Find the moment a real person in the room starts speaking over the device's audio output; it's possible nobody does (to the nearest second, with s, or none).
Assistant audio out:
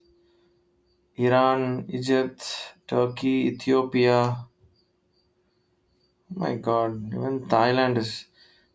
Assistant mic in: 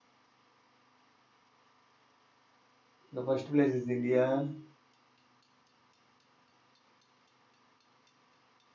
3 s